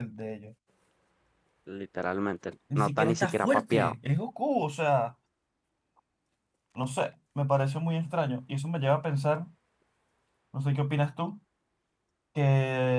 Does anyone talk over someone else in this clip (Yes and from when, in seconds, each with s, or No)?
Yes, from 2.7 s